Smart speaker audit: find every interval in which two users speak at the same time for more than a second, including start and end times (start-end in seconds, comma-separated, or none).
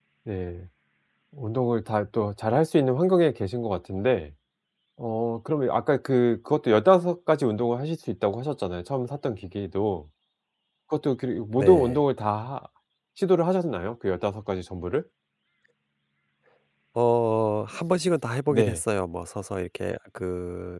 none